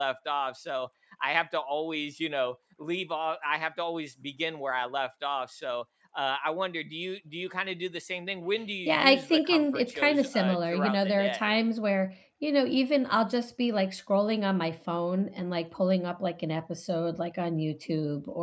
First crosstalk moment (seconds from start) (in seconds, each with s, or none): 8.8 s